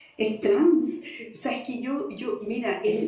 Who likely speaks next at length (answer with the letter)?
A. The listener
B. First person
B